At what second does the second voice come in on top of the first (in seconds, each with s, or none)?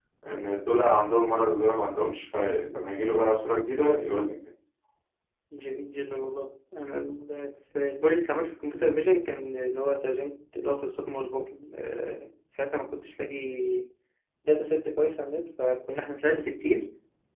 none